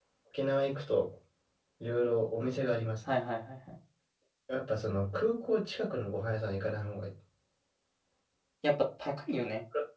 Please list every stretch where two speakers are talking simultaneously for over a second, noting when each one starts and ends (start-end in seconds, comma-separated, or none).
none